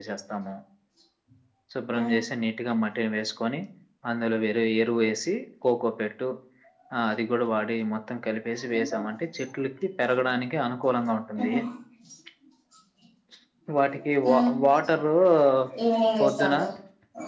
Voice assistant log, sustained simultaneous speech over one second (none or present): none